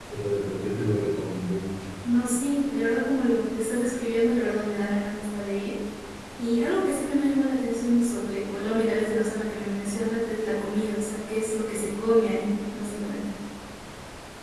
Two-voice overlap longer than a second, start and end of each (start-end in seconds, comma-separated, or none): none